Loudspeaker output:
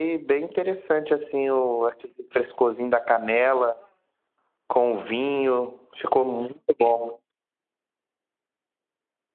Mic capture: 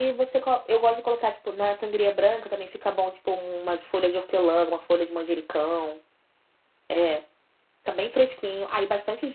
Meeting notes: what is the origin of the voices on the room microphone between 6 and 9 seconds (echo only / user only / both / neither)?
user only